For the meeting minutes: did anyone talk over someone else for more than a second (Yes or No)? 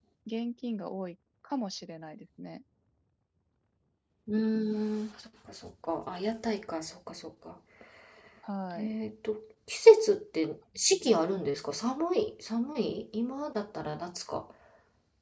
No